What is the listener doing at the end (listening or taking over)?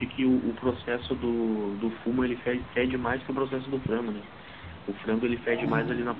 listening